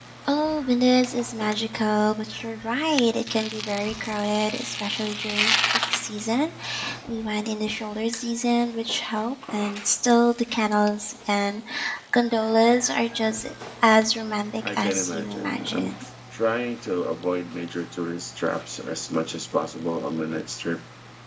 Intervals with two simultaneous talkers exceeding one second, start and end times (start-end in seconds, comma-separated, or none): 14.7-16.0